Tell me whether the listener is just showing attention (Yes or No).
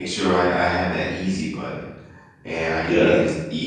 Yes